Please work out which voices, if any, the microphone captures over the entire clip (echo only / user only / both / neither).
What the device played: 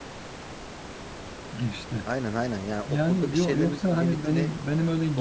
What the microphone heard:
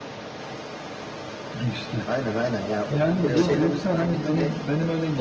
both